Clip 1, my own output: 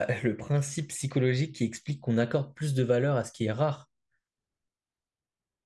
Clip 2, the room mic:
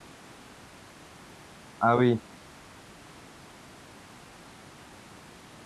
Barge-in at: 1.8 s

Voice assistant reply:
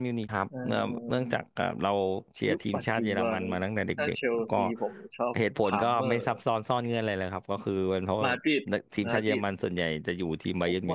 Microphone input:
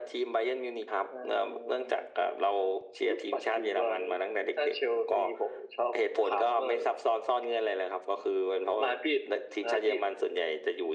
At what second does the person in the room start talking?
none

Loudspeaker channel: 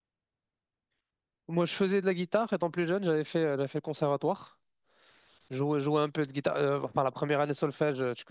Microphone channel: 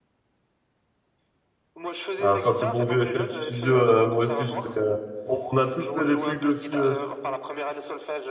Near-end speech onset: 2.2 s

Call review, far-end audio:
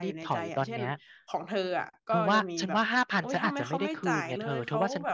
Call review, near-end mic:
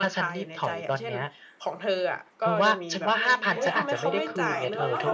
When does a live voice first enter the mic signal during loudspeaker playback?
3.0 s

